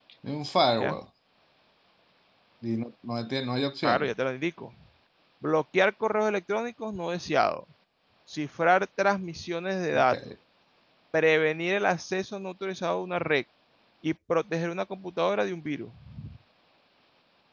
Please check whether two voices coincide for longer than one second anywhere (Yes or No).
No